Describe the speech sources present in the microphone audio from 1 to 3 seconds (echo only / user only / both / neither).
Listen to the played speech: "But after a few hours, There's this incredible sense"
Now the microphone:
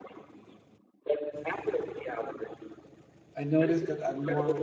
echo only